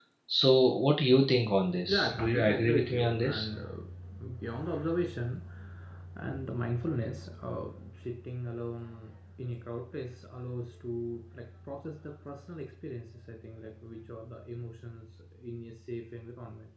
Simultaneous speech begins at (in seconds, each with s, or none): 1.7 s